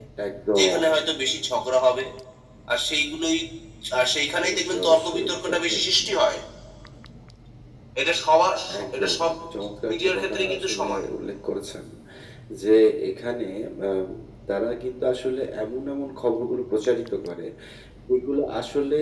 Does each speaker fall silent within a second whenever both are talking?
No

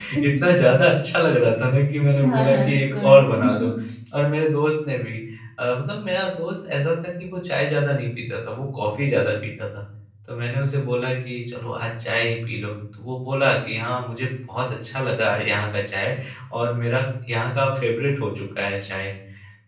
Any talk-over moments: Yes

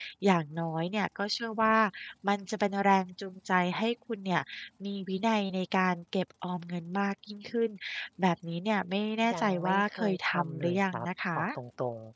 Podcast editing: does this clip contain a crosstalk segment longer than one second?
Yes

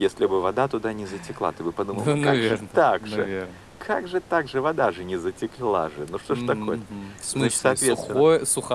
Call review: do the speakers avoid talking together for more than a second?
No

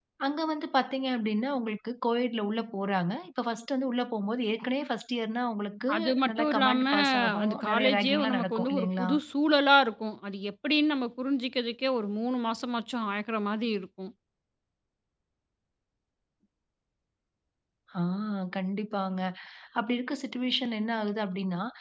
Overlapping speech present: Yes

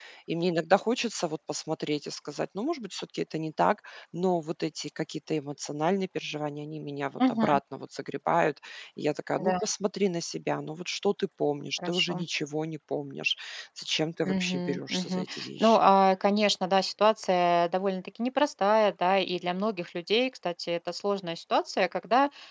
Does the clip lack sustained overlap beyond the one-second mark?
No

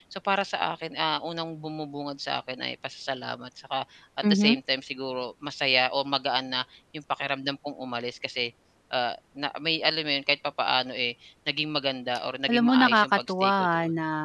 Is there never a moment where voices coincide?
No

